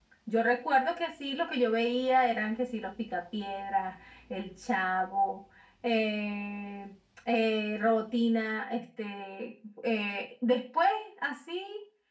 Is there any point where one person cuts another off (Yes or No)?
No